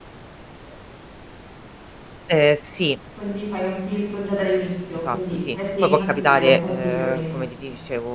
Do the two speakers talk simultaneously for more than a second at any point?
Yes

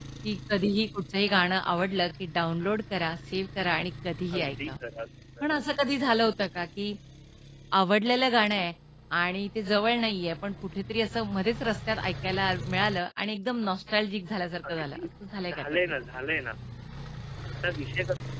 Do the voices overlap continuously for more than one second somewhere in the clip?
No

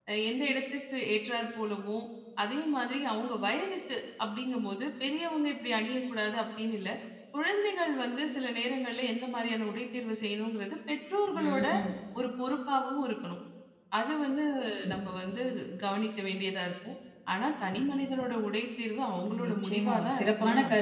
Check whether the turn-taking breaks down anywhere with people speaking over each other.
Yes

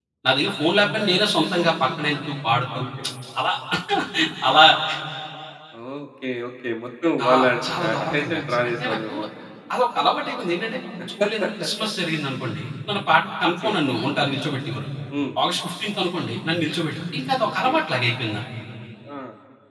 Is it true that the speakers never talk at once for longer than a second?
No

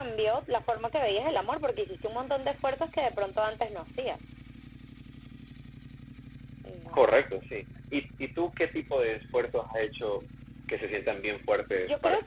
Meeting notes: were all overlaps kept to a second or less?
Yes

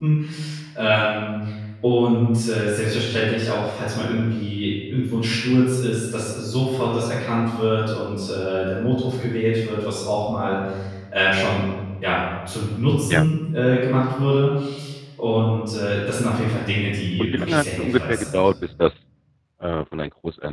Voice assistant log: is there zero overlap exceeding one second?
No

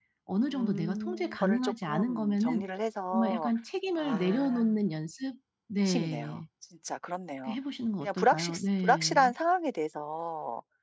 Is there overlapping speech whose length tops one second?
Yes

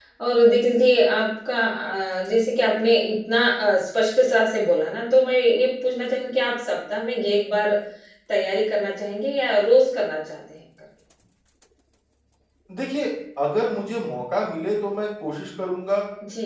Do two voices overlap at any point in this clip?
No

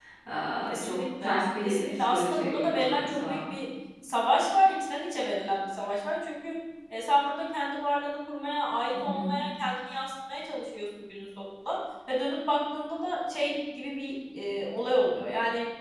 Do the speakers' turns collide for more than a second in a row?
Yes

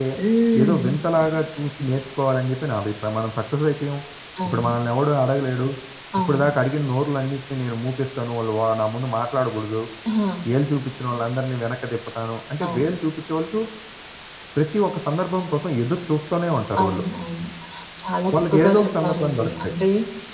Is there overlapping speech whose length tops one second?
Yes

